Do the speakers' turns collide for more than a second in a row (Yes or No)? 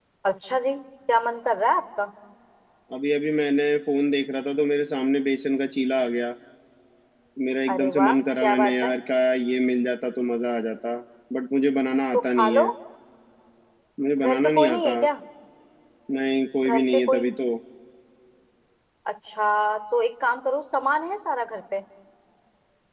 Yes